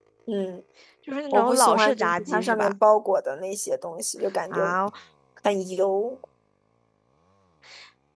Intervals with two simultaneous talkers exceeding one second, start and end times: 1.3-2.7

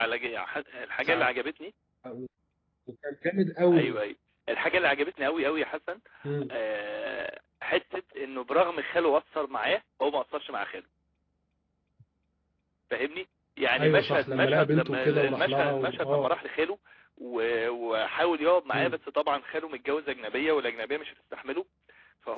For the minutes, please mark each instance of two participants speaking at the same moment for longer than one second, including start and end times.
13.8-16.3

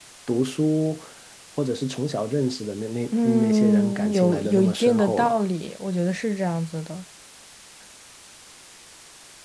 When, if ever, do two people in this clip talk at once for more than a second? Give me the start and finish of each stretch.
3.2-5.4

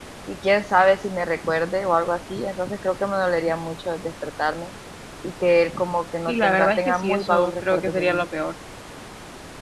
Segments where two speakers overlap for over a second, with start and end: 6.3-8.3

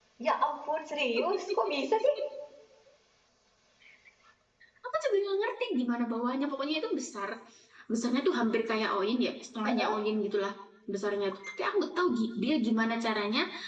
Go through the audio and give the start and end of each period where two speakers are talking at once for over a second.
none

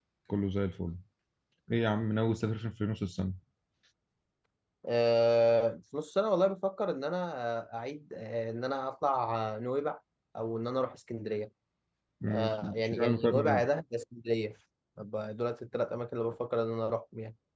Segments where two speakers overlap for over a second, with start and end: 12.3-13.6

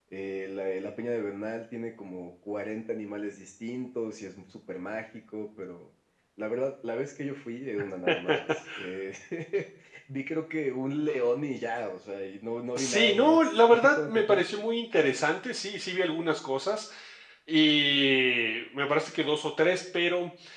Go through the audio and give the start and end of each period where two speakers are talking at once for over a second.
12.8-14.4

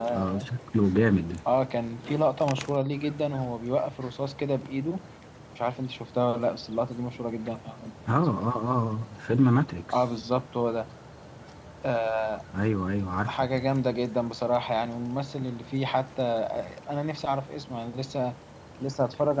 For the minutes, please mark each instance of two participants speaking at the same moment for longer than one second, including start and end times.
none

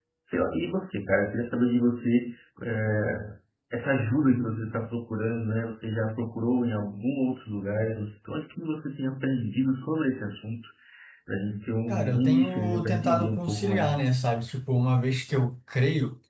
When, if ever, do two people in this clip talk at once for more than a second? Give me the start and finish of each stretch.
11.9-14.0

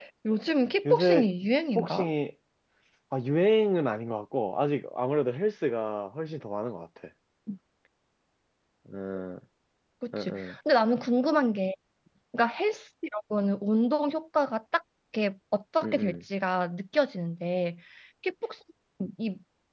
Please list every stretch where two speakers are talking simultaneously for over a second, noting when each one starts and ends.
none

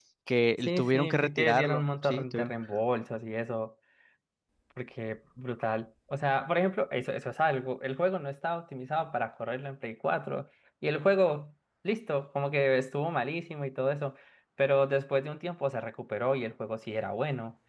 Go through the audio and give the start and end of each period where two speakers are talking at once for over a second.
0.7-2.5

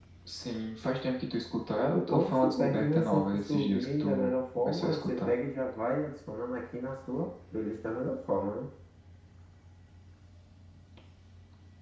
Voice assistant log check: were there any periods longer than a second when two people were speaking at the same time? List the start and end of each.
2.1-5.4

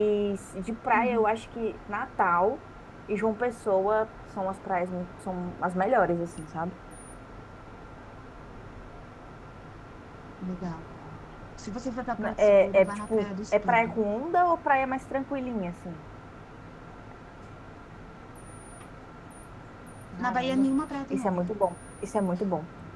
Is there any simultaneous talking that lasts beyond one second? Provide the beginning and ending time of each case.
12.2-14.0

